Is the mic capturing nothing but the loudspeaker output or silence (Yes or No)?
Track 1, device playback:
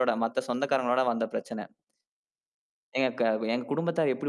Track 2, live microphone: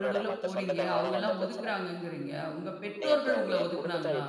No